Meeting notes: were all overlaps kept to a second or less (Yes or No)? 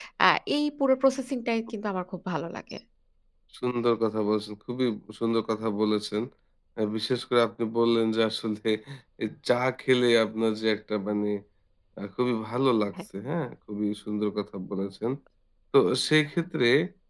Yes